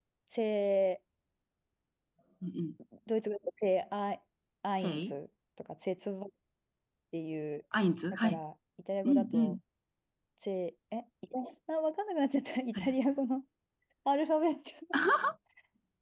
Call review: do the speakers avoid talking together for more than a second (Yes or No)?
Yes